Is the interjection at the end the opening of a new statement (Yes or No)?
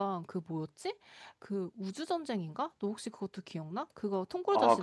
Yes